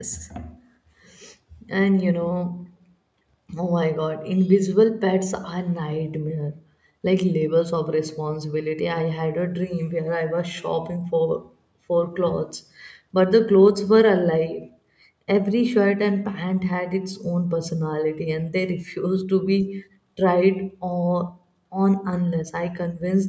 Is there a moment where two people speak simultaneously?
No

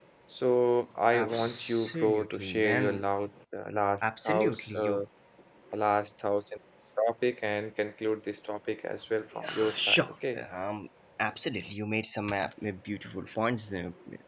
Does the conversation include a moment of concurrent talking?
Yes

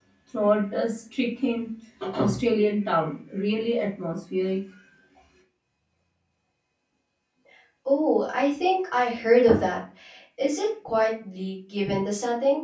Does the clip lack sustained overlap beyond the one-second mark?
Yes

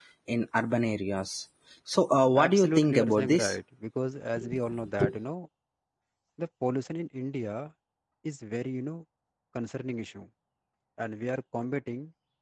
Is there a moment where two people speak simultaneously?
Yes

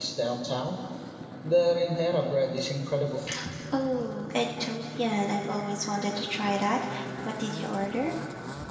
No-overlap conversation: Yes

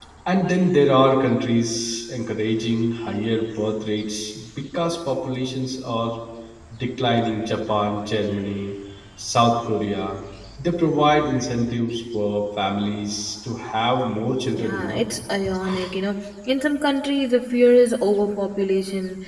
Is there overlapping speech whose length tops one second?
No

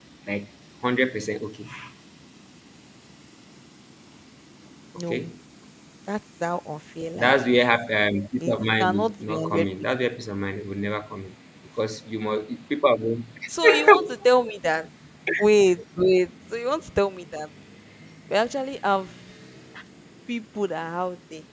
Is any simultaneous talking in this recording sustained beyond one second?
Yes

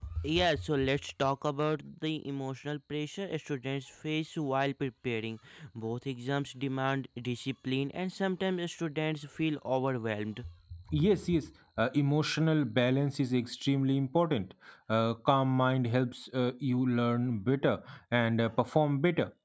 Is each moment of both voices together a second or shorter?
Yes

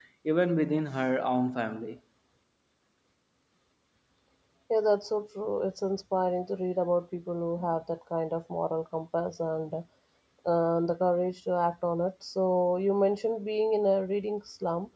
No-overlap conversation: Yes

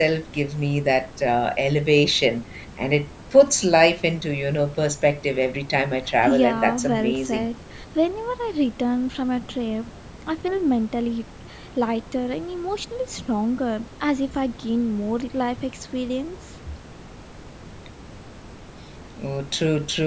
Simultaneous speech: Yes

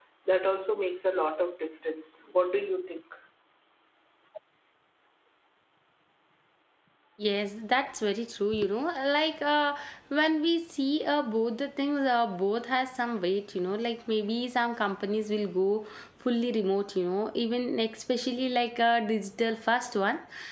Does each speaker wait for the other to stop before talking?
Yes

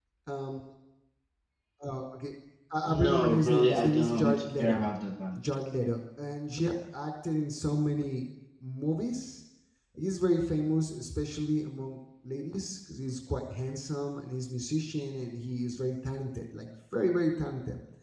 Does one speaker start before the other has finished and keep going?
Yes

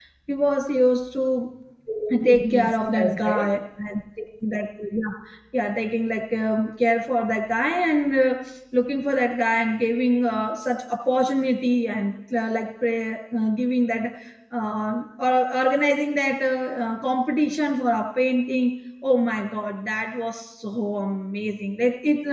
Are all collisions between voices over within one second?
No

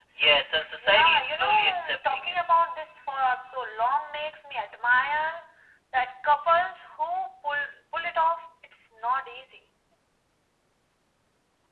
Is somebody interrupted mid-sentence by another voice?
Yes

